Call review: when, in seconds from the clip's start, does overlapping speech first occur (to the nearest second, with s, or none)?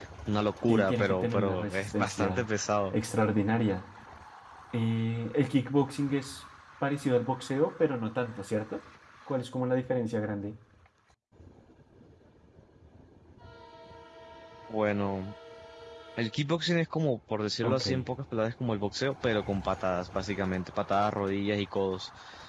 1 s